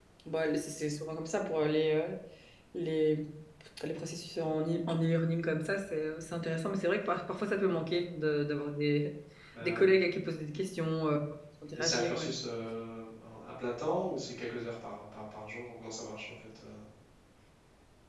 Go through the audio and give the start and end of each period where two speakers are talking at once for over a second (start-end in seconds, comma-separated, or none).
none